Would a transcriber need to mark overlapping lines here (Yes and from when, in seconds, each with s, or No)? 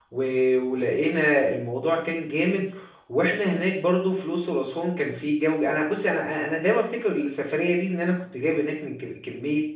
No